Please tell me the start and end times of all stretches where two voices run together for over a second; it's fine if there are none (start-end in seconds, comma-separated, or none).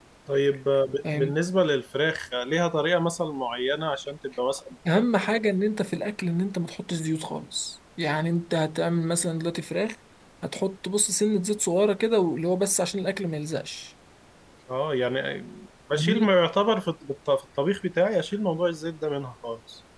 none